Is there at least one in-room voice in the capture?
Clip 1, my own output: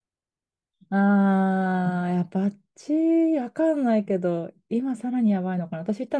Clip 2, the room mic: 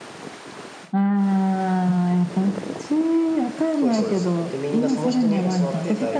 Yes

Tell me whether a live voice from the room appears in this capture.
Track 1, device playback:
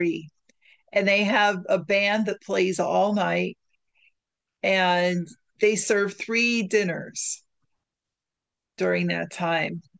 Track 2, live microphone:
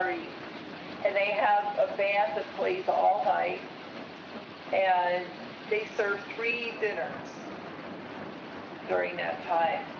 No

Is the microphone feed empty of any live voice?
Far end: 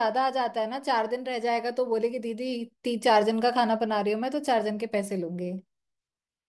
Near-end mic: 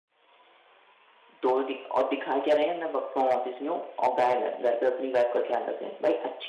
No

